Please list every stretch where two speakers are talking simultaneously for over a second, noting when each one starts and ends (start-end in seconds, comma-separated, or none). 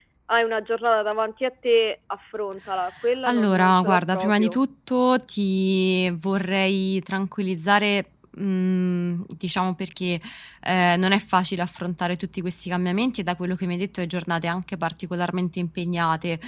3.3-4.6